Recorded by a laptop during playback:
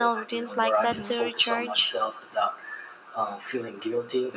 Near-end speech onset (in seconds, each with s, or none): 0.8 s